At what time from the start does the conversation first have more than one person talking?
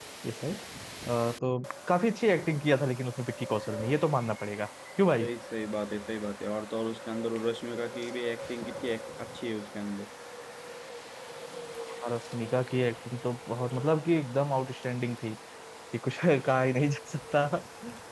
none

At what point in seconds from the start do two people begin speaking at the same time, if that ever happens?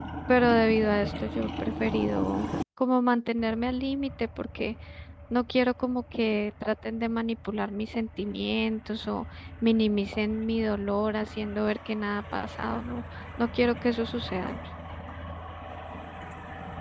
none

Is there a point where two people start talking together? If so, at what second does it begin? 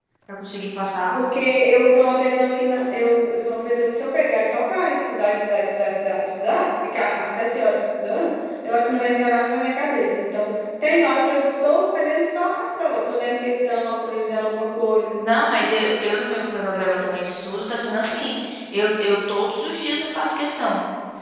none

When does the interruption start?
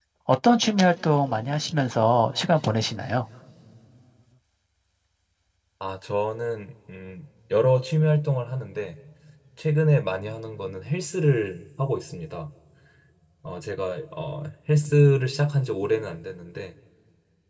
none

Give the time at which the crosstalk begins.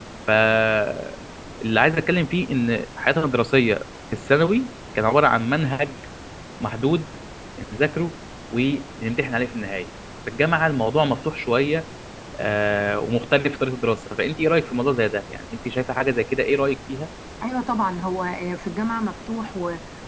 none

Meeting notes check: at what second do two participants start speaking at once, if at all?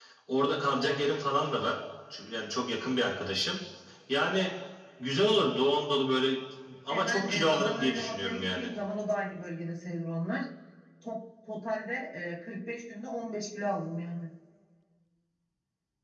6.9 s

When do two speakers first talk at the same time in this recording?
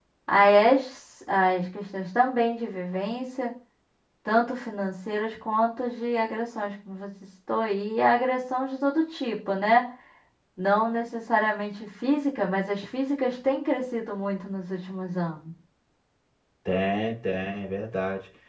none

